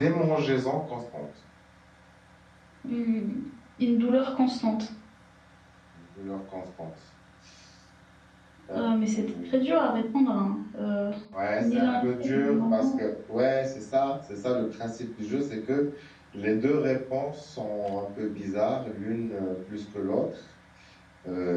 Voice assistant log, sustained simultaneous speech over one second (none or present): present